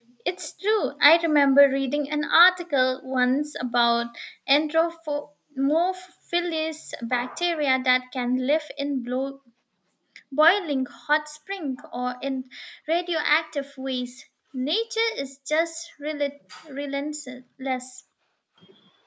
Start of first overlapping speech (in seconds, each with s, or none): none